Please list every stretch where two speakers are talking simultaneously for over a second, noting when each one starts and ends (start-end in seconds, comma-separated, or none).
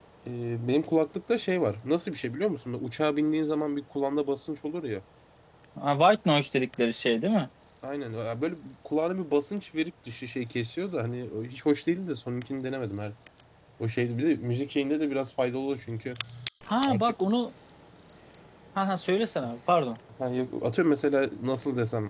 none